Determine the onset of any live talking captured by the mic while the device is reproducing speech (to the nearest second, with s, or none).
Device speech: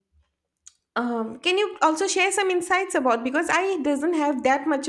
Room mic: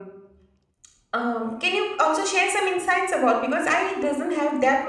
none